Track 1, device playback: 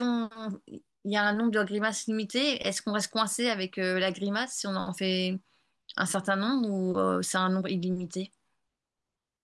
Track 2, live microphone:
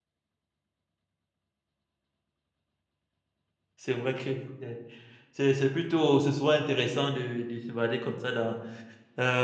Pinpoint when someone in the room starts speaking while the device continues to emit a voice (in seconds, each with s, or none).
3.7 s